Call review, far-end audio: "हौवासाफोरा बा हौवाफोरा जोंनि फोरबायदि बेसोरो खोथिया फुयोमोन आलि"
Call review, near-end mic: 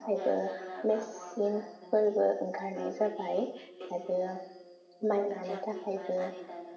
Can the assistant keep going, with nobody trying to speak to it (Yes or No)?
No